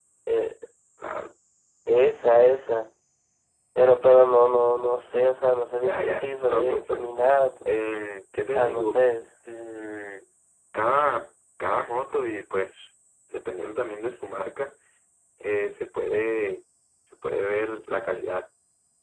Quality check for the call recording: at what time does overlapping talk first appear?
5.8 s

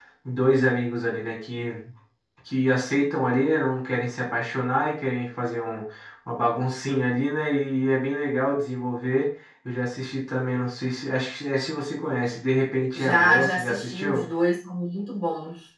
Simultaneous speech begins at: 12.9 s

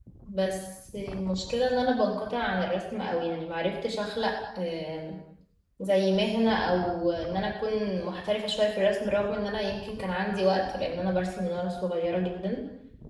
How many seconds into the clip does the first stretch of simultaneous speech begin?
none

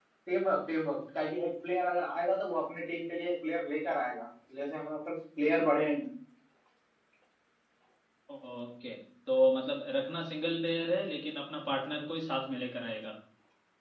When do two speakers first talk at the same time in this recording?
none

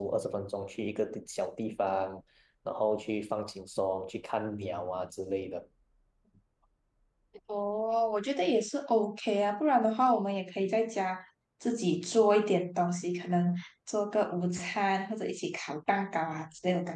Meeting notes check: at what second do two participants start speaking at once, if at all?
none

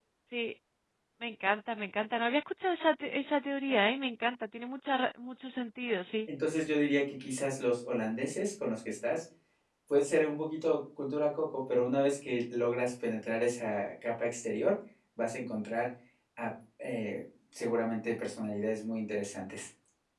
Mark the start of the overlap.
none

